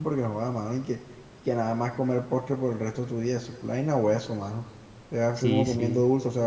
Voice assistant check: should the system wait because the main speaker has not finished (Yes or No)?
Yes